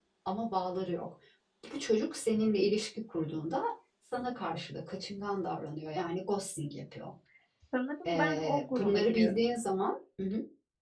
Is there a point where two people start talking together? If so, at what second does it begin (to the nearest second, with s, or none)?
8 s